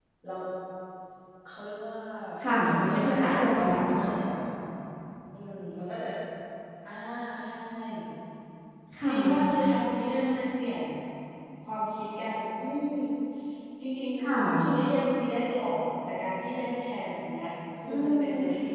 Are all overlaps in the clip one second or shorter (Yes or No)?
No